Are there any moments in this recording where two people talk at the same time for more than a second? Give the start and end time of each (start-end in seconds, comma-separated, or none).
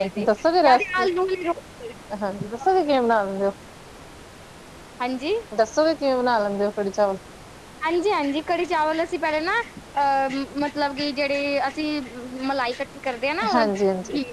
none